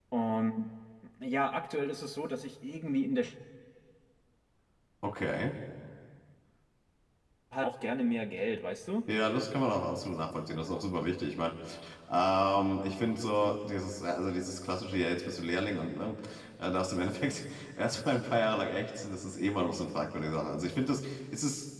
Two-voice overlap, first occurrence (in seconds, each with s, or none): none